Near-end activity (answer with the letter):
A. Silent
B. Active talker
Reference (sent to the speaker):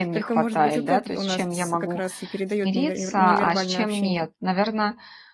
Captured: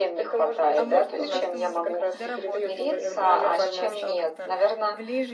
B